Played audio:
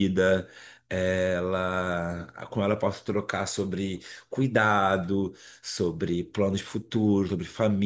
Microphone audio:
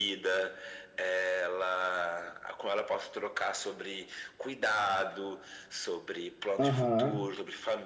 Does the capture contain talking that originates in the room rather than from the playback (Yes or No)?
Yes